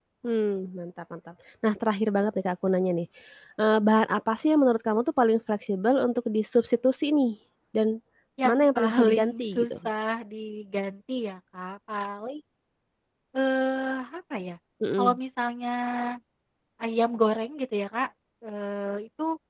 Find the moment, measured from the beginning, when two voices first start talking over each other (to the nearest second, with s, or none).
8 s